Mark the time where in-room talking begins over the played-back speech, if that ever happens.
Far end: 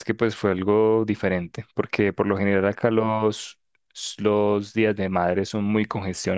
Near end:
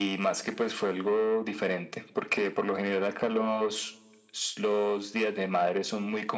none

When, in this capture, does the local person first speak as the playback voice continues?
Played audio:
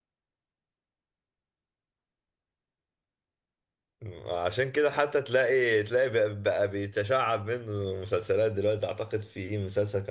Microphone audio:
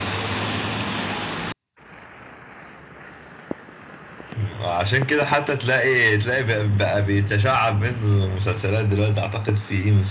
none

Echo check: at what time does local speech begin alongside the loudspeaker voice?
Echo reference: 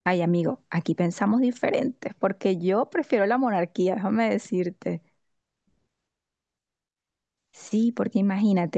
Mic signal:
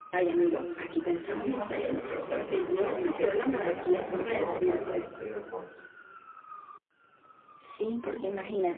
1 s

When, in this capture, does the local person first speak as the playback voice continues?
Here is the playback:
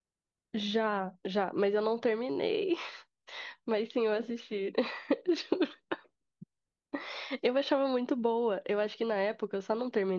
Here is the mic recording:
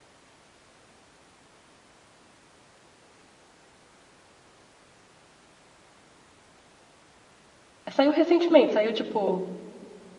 8 s

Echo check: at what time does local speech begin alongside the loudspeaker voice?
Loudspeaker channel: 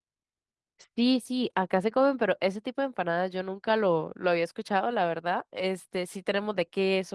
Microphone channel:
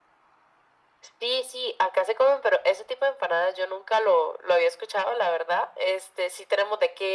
none

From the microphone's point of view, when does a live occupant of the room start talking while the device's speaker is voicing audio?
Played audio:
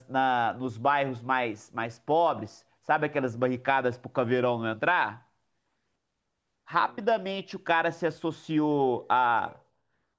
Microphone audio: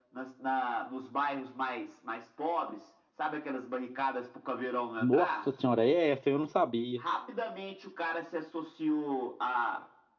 5 s

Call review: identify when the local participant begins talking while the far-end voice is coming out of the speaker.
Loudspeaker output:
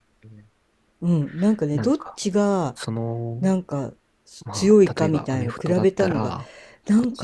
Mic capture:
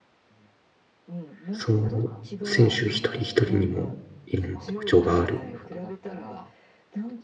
2 s

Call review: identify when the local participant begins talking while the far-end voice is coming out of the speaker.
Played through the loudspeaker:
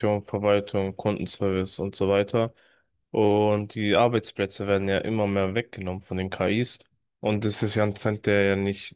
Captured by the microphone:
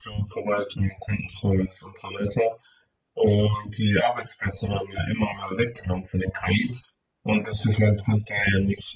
none

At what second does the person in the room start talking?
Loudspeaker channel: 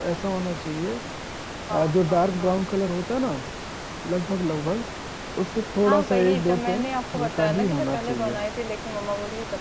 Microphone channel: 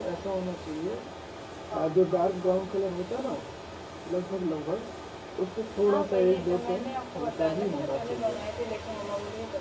none

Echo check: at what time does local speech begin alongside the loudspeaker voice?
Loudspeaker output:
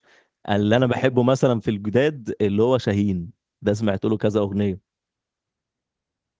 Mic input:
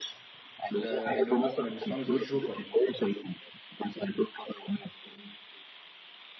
1 s

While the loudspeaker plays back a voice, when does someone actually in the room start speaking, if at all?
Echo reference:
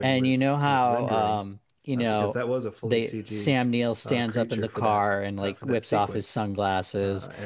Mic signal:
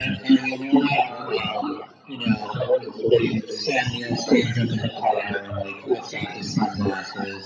none

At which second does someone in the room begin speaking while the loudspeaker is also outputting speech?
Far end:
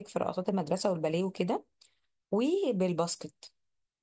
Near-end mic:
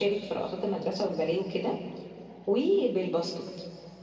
none

